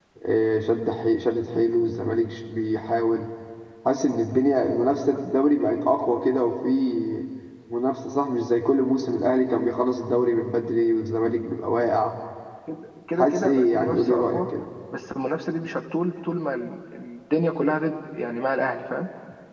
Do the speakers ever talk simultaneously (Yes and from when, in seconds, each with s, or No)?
Yes, from 13.2 s